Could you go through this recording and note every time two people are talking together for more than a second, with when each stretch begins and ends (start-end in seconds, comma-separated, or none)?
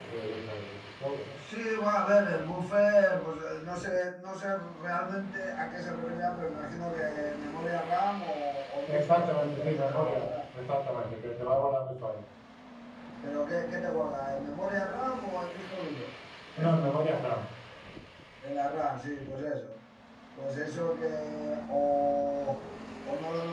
8.9-10.3